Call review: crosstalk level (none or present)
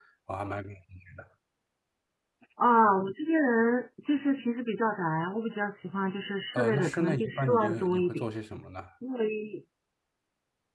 present